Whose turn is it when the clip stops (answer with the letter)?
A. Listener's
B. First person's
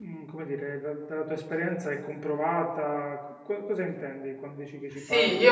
A